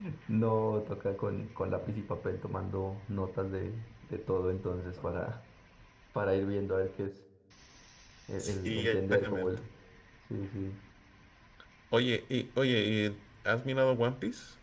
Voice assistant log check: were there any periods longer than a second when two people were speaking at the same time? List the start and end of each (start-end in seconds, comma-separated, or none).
8.4-9.6